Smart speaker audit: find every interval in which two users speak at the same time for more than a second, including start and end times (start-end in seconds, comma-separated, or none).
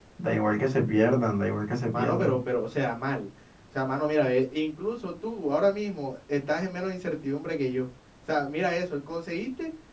none